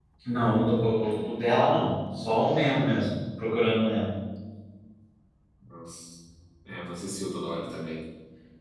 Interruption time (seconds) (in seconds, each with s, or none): none